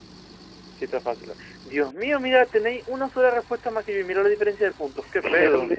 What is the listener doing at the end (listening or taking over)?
taking over